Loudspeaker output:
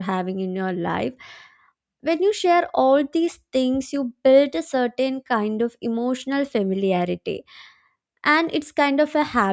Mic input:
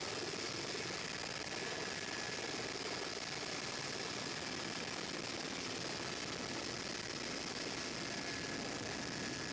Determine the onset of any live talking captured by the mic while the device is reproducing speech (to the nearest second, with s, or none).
none